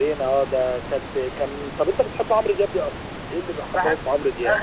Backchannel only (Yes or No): No